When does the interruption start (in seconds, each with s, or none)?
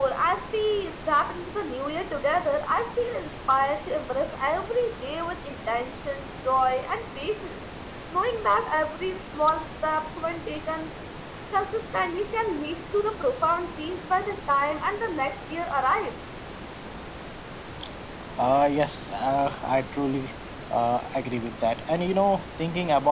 none